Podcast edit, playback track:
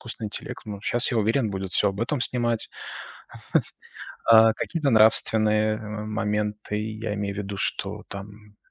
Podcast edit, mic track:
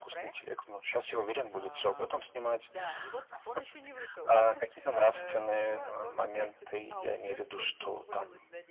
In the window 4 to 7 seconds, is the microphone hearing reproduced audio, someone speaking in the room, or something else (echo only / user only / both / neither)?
both